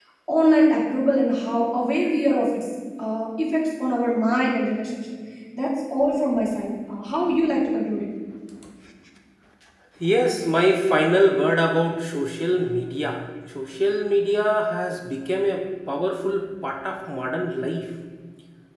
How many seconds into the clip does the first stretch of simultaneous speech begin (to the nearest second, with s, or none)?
none